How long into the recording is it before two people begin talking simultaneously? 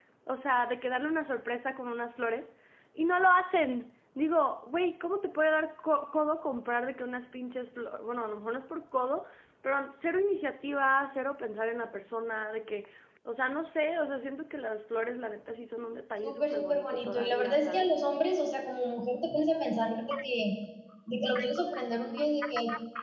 16.2 s

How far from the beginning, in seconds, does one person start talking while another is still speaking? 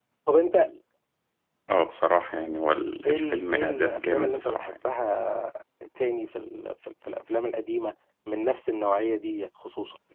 3.0 s

